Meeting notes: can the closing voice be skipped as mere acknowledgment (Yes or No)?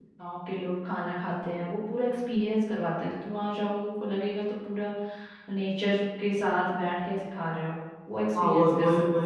No